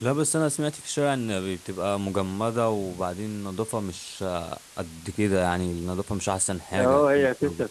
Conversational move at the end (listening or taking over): taking over